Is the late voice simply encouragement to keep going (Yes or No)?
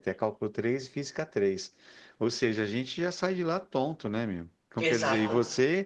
Yes